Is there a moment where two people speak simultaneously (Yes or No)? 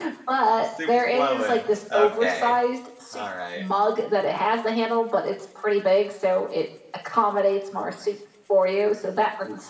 Yes